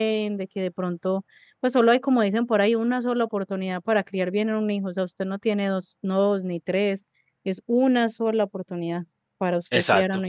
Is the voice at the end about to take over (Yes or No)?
Yes